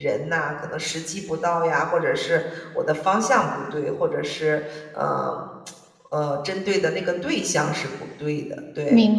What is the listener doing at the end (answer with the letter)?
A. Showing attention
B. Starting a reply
B